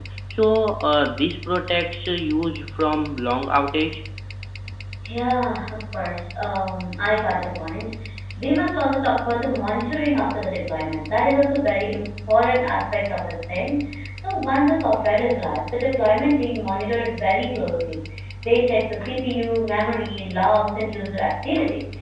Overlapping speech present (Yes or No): No